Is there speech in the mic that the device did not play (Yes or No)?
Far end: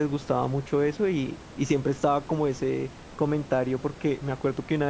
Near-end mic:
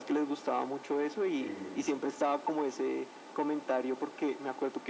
Yes